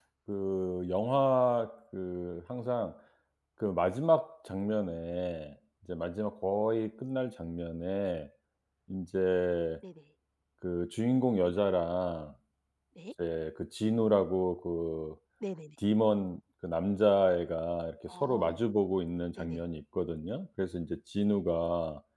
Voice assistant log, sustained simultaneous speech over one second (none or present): none